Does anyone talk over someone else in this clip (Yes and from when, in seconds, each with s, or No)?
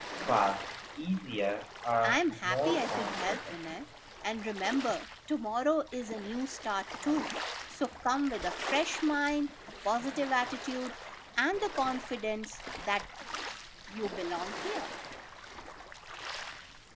Yes, from 2.0 s